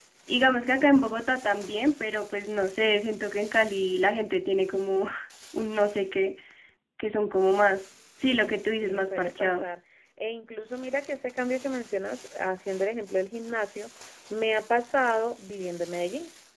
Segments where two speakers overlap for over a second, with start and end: 8.3-9.7

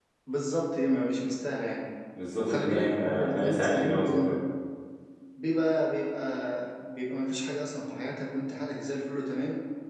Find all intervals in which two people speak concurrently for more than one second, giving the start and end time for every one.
2.4-4.4

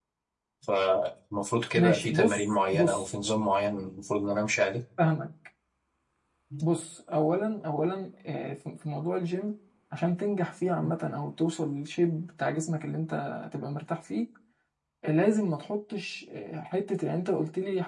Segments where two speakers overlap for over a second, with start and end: 1.8-3.1

